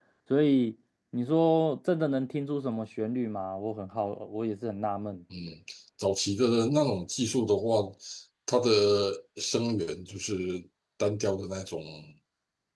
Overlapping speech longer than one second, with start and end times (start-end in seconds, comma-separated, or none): none